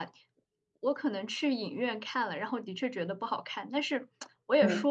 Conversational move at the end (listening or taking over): listening